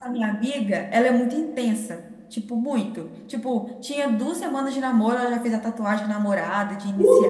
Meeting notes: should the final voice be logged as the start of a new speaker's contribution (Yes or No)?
Yes